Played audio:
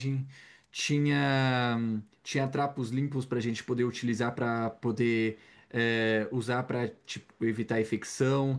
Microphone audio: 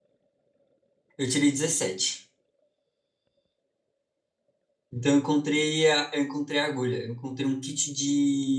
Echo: none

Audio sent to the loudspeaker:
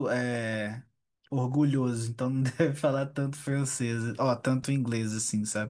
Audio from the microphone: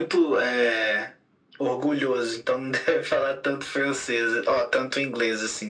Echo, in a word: present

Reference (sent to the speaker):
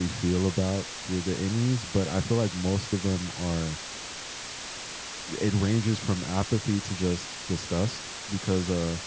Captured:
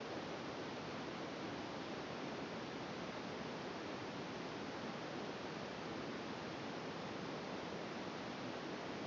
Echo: none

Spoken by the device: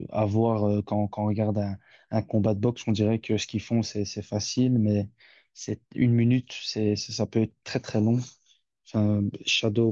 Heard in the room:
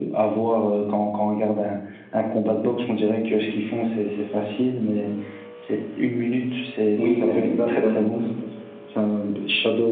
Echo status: present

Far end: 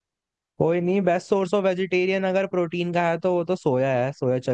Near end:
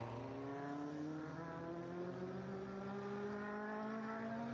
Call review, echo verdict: none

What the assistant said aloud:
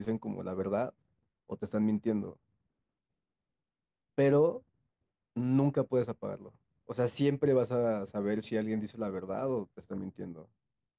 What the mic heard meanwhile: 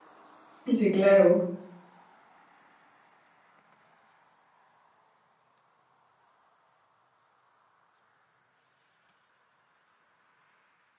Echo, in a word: none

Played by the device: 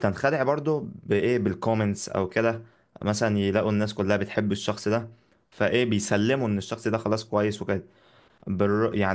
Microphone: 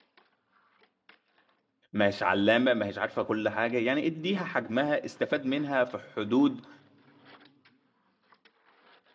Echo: none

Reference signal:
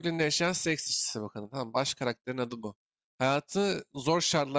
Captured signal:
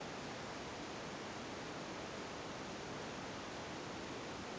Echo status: none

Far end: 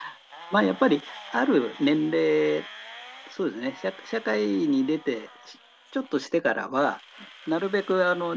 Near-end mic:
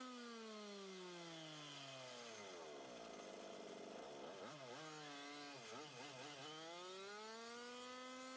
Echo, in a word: none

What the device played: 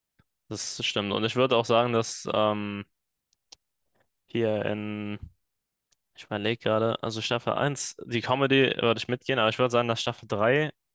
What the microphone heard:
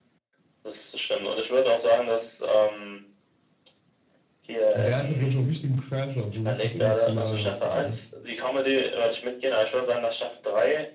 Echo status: present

